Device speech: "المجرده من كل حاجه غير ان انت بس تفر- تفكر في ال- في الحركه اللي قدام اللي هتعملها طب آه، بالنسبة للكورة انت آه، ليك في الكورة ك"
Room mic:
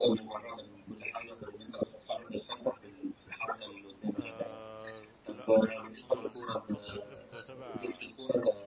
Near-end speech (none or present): present